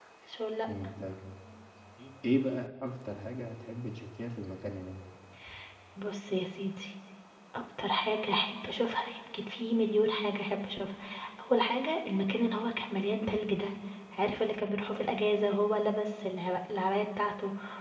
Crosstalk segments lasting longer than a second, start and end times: none

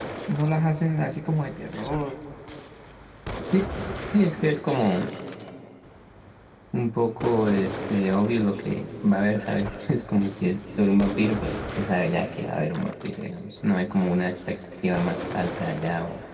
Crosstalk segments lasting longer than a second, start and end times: none

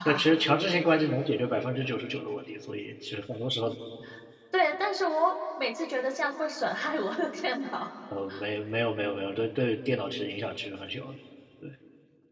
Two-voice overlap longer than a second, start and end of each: none

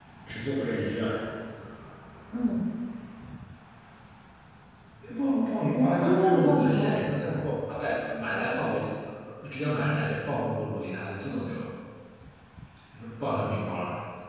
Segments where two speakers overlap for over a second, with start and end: 5.7-7.4

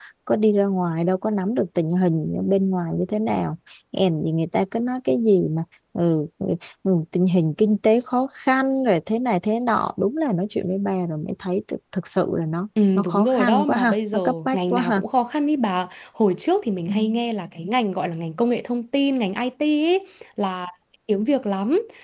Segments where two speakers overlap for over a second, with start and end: 12.9-15.0

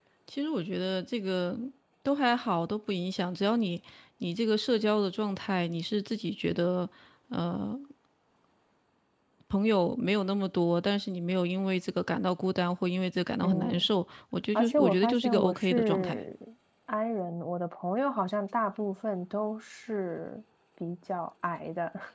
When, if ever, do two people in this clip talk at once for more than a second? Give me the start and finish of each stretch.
14.5-16.2

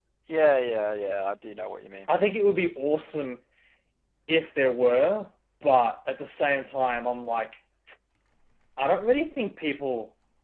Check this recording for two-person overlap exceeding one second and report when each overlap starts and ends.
none

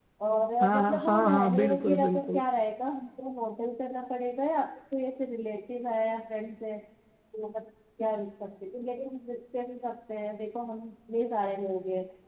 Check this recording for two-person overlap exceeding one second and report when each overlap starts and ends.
0.6-2.4

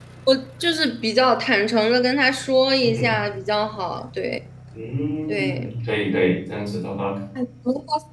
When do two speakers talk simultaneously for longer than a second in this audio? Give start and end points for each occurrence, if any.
none

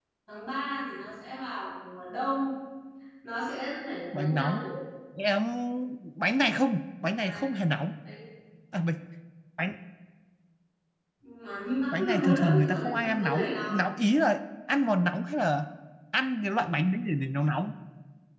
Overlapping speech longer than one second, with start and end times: 11.9-13.8

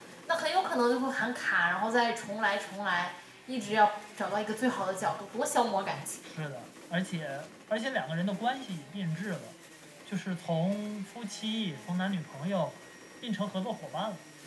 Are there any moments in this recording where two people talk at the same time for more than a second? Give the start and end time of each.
none

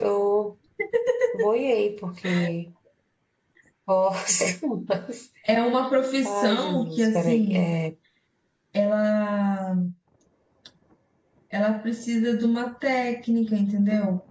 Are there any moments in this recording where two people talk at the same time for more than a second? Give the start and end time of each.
6.2-7.7

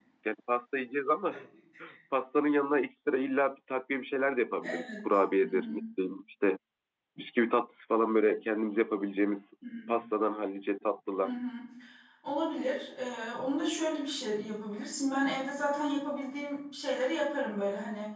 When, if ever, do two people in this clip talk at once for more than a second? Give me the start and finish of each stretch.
none

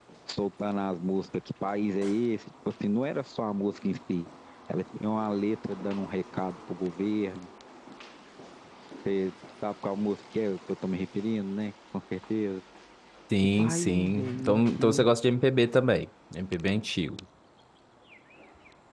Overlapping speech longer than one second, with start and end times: 13.6-15.1

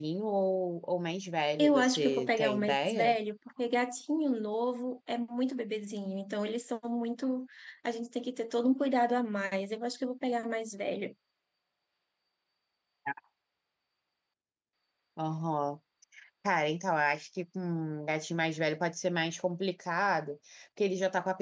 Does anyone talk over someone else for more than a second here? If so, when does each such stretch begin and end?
1.6-3.1

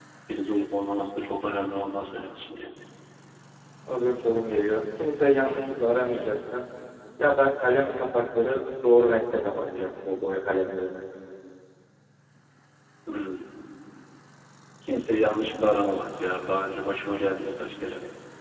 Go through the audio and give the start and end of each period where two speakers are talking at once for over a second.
none

